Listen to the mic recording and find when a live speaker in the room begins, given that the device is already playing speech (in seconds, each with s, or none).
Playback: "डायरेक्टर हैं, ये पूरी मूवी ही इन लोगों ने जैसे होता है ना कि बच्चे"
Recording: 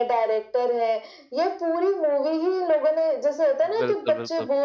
3.6 s